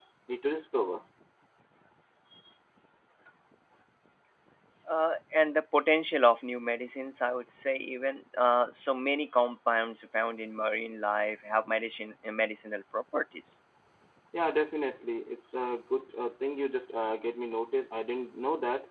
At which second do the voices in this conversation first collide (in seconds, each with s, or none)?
none